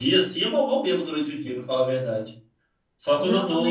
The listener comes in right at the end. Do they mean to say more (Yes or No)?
Yes